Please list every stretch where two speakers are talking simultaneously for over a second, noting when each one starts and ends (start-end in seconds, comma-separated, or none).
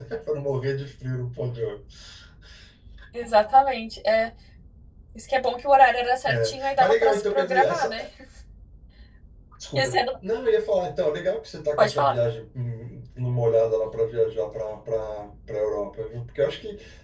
6.3-8.0